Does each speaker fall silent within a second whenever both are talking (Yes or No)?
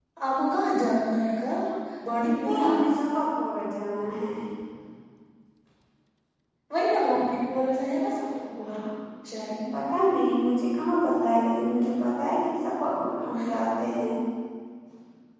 Yes